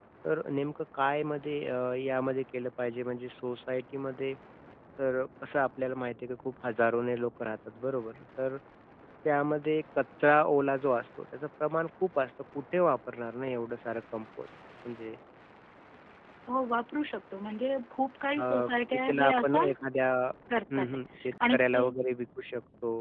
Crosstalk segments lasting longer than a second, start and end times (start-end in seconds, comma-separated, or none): 18.4-19.7